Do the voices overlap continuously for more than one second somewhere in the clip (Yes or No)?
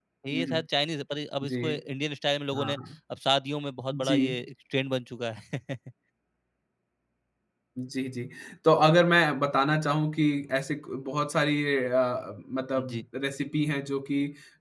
No